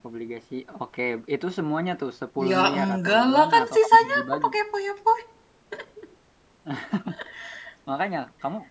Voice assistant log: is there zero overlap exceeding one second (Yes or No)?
No